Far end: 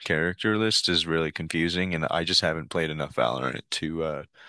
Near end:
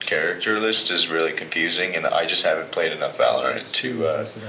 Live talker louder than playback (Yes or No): No